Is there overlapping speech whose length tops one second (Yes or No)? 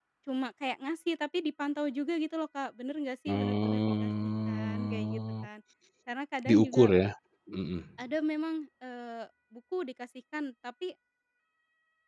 Yes